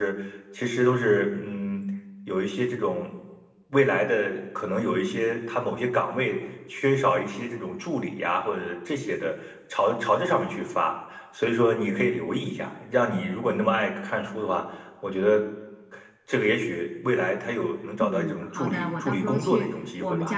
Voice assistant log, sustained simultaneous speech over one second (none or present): present